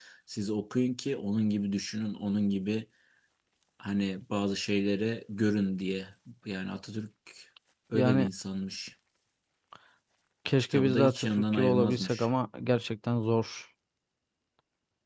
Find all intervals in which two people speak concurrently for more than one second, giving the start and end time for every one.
10.7-12.3

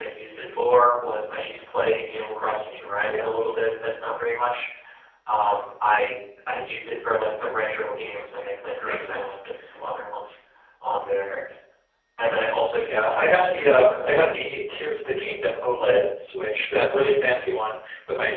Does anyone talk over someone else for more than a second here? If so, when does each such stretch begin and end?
12.9-14.2

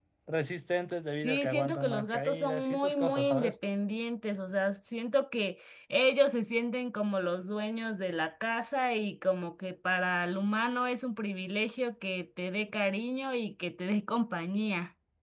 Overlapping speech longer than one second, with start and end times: 1.2-3.6

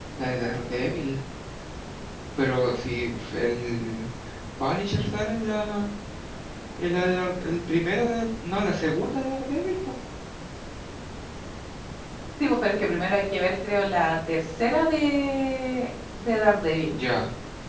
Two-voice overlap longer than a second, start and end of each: none

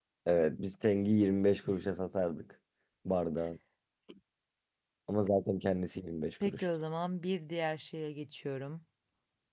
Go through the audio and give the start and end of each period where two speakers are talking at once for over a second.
none

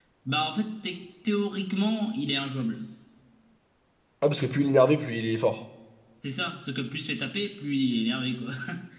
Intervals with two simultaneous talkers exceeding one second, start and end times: none

